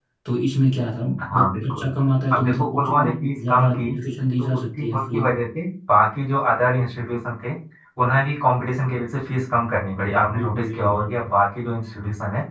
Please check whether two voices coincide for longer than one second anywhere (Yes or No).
Yes